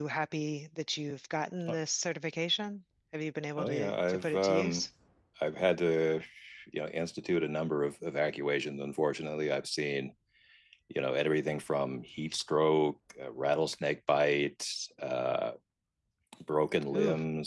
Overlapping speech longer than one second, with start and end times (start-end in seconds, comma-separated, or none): 3.6-4.8